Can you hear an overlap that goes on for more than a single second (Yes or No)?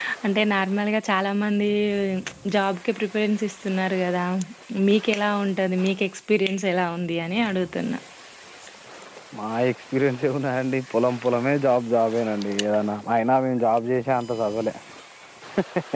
No